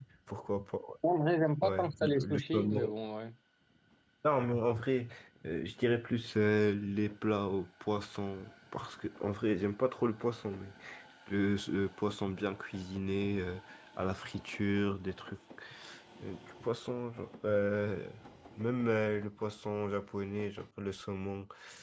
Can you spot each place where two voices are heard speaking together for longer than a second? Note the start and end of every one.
1.6-2.9

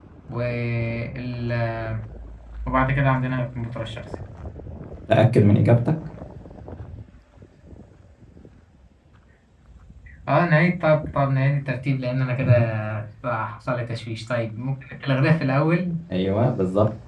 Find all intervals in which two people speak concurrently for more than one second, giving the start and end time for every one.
none

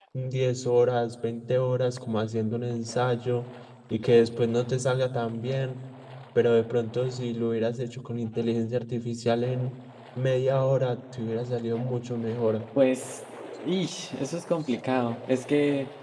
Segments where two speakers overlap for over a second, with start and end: none

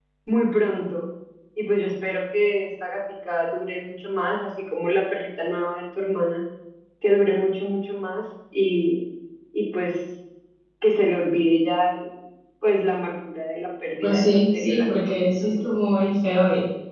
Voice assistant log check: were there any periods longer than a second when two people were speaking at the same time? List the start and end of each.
14.0-15.6

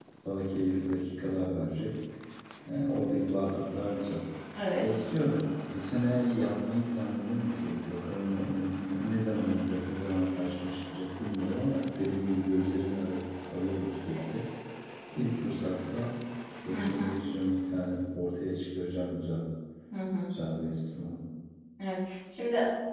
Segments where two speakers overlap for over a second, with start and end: none

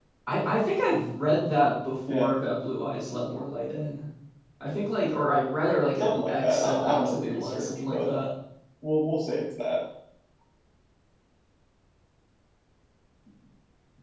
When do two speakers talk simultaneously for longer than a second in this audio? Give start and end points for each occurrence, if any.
6.0-8.2

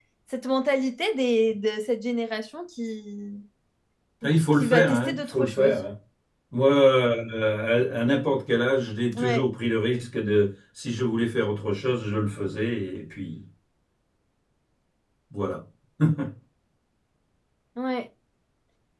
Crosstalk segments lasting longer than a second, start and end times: 4.5-5.8

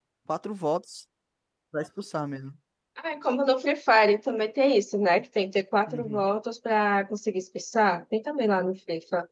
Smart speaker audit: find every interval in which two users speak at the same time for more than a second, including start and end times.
none

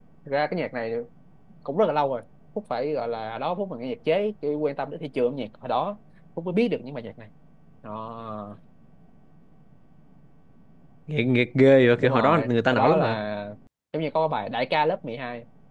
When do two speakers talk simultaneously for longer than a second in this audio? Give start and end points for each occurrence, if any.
12.0-13.2

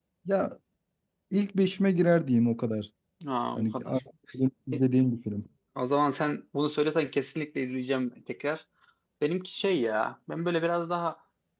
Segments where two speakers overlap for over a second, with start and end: none

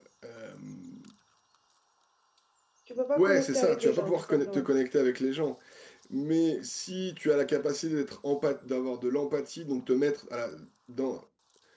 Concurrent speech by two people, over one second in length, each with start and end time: 3.2-4.7

